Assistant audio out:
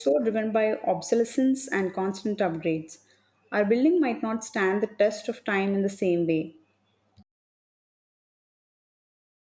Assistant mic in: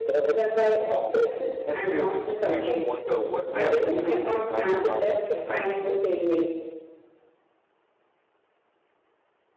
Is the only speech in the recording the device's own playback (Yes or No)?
No